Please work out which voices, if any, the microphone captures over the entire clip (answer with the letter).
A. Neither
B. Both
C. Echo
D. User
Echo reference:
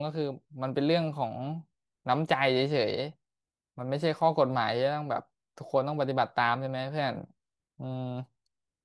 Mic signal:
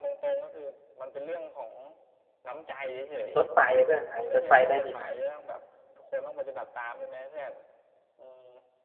B